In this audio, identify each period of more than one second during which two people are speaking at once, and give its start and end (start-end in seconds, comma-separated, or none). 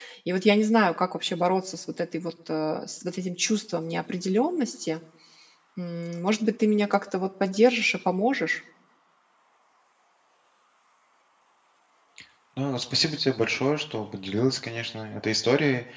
none